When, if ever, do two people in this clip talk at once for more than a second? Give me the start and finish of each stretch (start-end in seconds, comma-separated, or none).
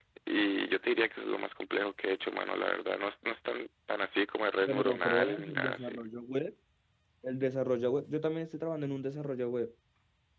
4.7-5.9